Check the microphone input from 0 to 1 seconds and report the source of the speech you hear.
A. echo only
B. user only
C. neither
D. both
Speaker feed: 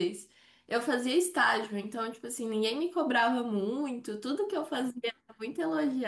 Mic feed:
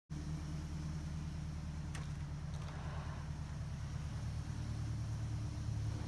C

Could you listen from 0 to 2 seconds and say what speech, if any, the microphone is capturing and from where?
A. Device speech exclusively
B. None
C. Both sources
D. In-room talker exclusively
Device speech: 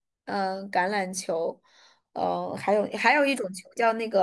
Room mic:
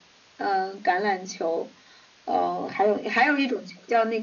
A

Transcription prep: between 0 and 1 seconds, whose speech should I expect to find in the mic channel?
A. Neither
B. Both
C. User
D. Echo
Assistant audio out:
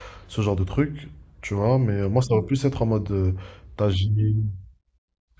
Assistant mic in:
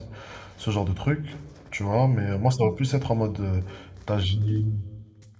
D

